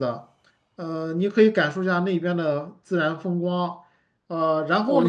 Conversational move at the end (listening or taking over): taking over